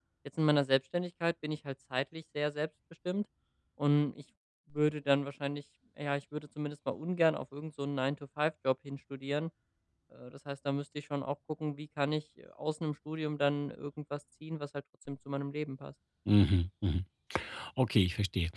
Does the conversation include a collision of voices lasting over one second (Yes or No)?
No